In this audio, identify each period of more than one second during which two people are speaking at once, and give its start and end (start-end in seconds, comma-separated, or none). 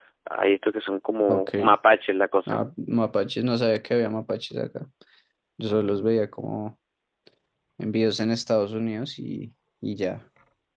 none